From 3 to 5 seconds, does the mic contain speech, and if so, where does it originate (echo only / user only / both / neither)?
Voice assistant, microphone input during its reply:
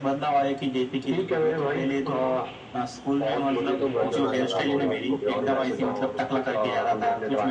both